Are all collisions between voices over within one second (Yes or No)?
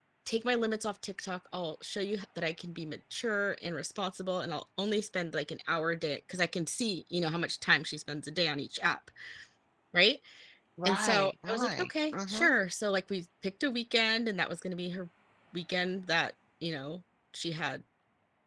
No